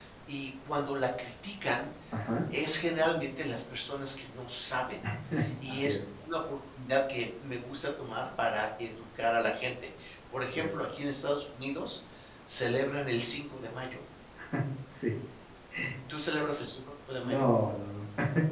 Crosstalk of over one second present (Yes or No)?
No